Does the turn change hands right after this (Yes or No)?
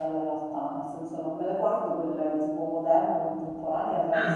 No